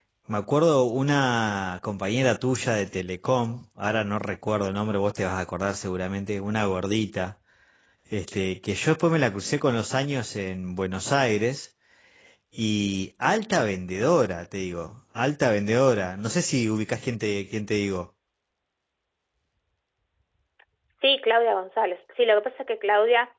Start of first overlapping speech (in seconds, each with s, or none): none